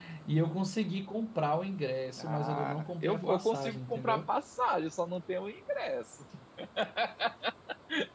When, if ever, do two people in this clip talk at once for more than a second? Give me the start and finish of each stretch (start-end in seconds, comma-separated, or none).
2.2-4.3